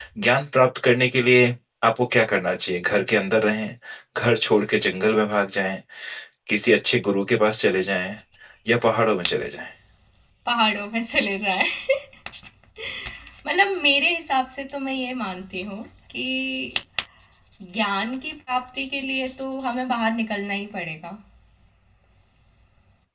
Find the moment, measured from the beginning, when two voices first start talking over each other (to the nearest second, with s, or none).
none